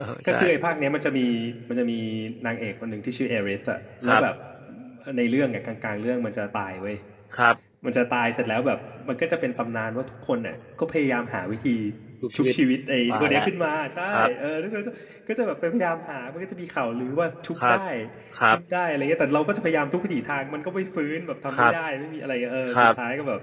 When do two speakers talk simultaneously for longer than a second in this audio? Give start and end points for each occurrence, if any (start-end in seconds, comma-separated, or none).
none